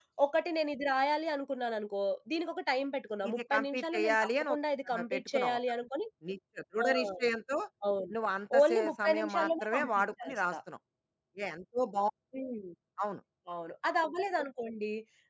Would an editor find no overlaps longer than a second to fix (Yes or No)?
No